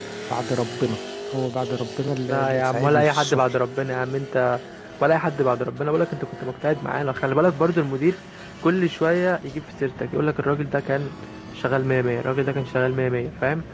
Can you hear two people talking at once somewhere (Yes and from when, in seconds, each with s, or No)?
Yes, from 2.1 s